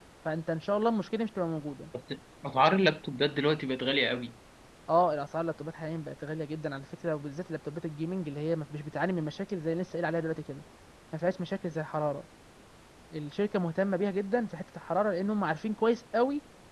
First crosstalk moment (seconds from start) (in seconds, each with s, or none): none